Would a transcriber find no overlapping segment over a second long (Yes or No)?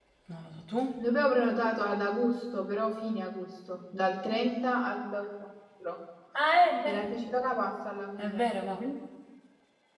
Yes